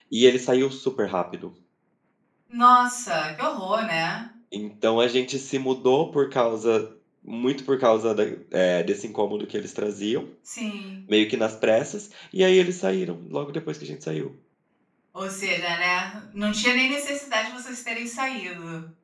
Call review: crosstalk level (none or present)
none